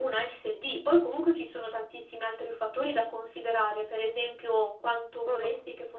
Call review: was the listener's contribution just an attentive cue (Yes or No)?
Yes